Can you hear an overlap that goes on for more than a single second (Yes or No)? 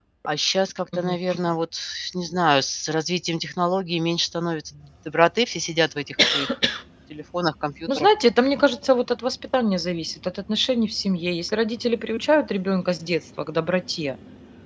No